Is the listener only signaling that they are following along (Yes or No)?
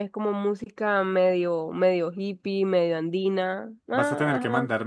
No